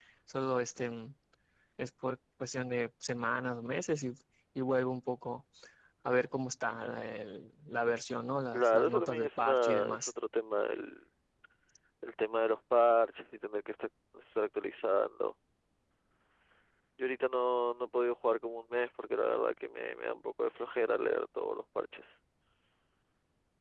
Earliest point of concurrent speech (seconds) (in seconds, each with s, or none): 8.5 s